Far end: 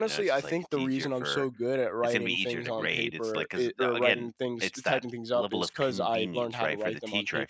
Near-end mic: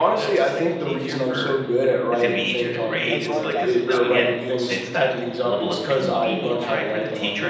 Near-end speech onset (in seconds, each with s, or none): 3.1 s